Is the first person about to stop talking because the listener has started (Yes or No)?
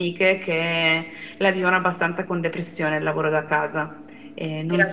Yes